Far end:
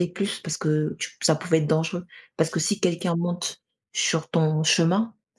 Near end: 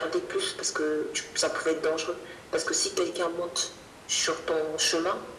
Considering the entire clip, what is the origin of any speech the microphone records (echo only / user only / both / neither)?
echo only